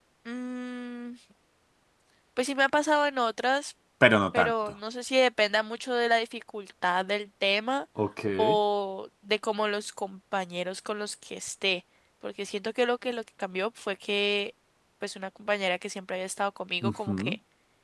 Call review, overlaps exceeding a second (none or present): none